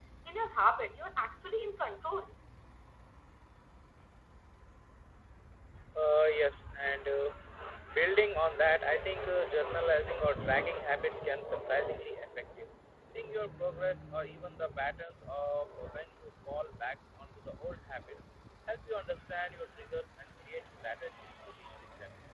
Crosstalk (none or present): none